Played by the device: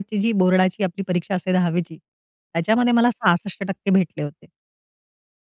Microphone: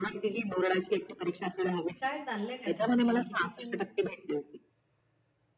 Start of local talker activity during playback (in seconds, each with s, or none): 1.9 s